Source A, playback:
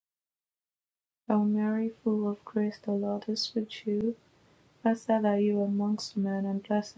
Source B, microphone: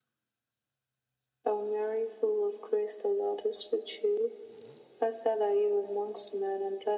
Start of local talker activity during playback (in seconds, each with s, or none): none